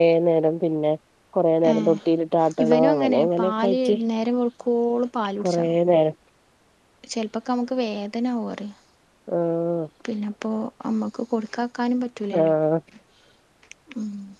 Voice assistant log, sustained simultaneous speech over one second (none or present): present